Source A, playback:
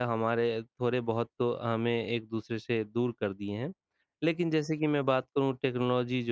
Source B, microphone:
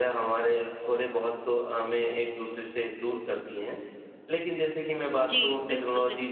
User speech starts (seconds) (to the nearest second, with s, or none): 5 s